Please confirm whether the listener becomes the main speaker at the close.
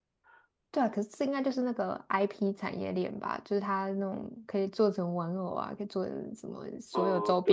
Yes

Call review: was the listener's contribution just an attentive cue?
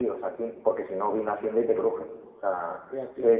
Yes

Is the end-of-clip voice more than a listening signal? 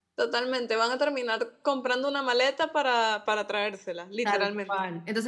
Yes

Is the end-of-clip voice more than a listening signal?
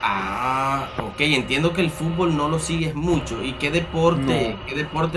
No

